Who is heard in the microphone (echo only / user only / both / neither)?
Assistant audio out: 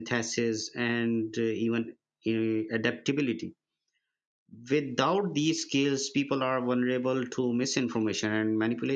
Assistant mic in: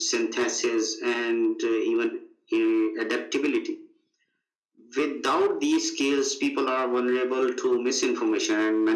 echo only